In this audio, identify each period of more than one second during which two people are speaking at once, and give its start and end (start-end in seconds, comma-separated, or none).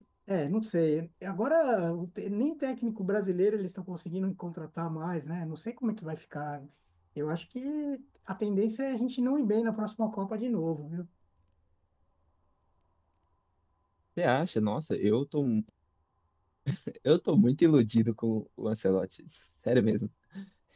none